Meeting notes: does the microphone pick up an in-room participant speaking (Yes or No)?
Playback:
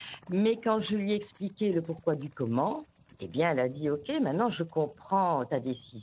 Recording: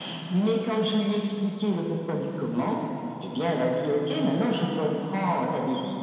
No